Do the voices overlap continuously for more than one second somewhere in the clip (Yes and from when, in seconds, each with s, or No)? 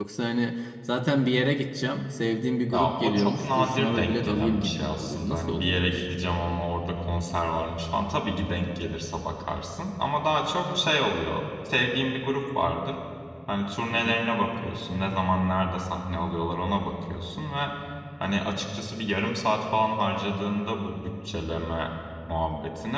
Yes, from 2.7 s